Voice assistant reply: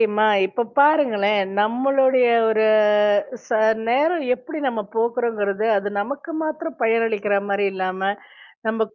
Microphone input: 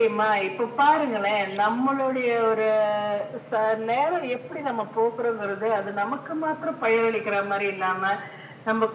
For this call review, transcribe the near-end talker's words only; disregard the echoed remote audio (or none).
none